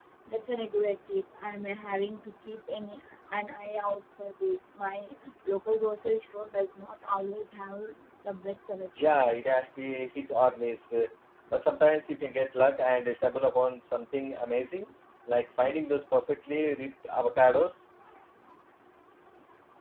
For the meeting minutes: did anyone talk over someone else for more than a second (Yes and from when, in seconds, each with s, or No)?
No